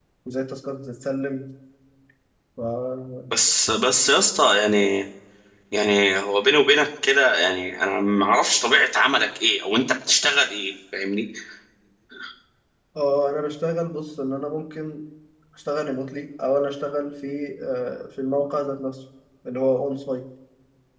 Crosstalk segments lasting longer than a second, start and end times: none

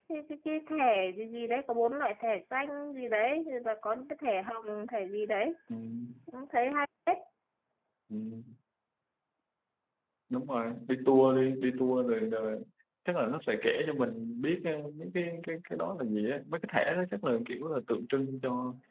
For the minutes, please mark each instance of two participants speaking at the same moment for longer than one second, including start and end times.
none

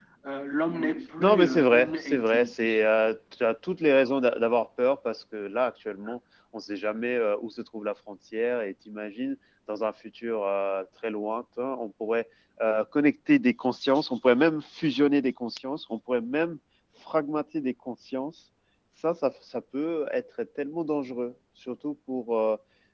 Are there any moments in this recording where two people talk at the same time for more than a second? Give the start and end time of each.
1.2-2.7

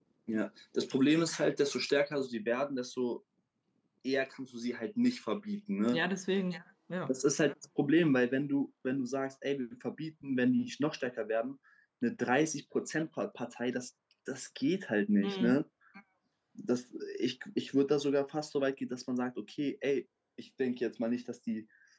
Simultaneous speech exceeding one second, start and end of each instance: none

